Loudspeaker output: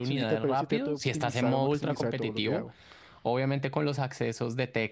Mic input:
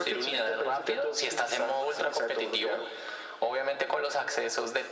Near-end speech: none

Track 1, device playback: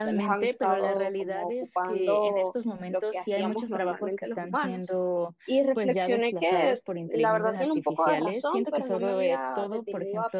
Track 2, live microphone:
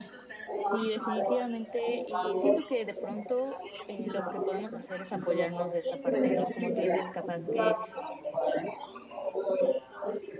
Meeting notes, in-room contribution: present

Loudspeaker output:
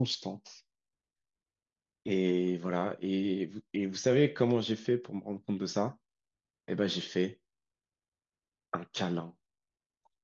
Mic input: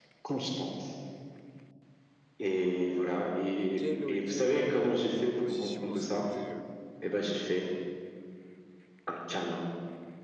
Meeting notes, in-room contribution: present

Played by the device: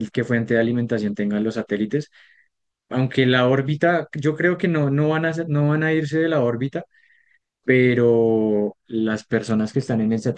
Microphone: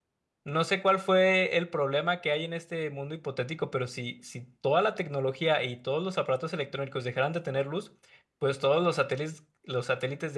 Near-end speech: present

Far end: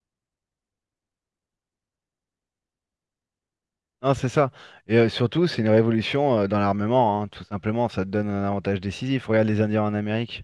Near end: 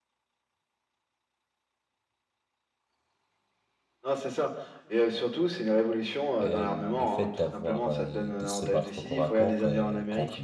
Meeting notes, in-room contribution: present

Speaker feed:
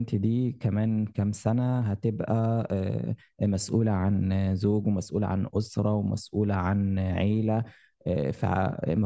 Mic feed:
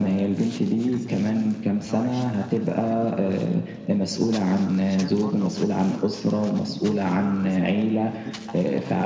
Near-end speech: present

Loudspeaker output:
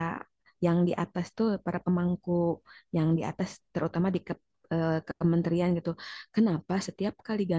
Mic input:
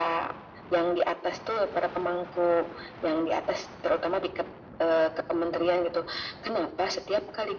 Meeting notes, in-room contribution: none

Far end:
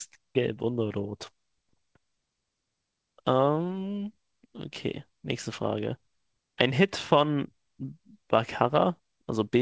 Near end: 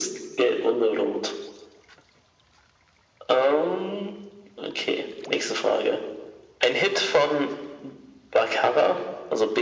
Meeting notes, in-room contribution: none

